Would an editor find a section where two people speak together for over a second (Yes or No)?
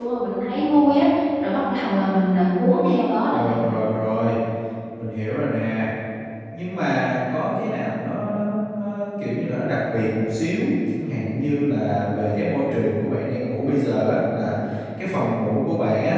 No